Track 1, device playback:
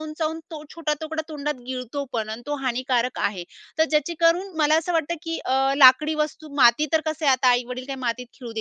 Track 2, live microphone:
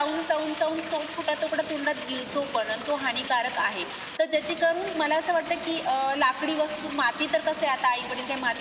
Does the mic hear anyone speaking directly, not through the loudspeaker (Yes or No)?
No